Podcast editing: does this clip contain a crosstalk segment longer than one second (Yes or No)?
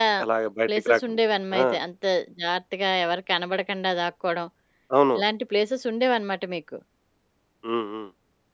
No